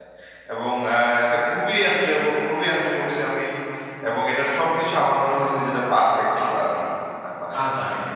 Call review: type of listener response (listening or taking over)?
taking over